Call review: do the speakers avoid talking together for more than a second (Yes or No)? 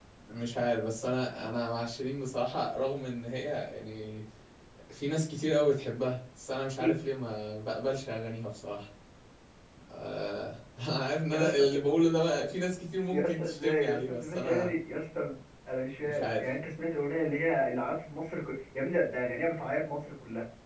No